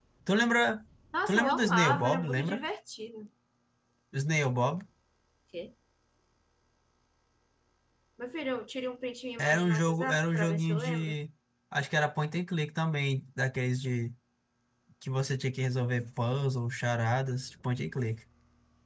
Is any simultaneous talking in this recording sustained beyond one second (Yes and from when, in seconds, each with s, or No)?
Yes, from 1.3 s